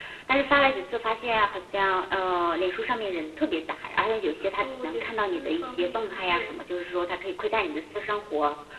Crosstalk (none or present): present